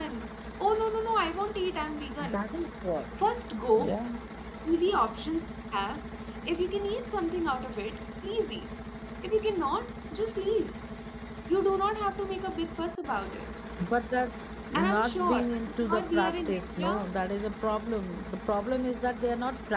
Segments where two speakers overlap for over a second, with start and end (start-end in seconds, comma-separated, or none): 14.7-16.9